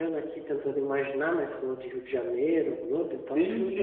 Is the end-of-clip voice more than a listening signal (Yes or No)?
Yes